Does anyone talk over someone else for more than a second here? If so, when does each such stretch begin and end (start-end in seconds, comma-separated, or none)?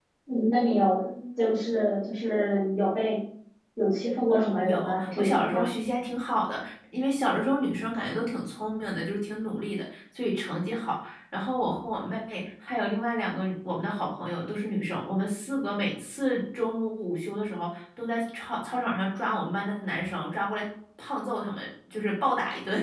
4.4-5.7